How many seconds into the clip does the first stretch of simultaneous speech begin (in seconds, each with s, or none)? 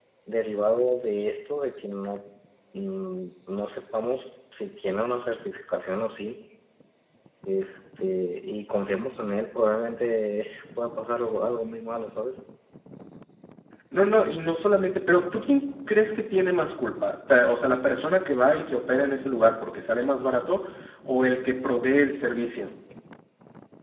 none